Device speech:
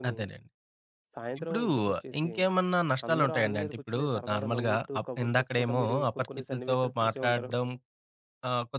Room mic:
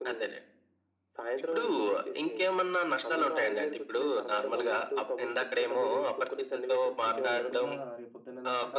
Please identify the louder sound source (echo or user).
echo